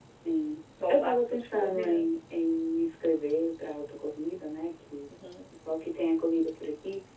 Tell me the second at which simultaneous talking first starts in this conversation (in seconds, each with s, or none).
0.9 s